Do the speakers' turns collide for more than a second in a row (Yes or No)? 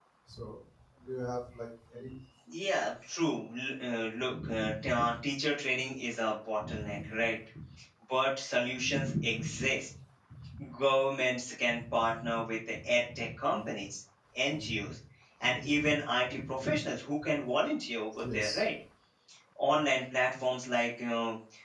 No